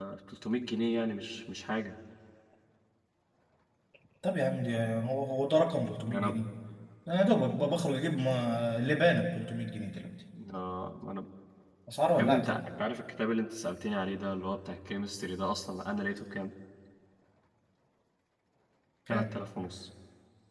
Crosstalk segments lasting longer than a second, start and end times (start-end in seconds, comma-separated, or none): none